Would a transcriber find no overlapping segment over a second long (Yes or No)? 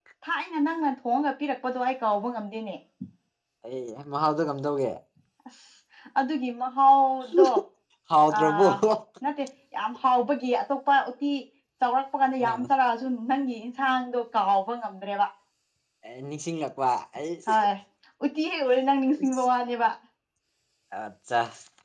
Yes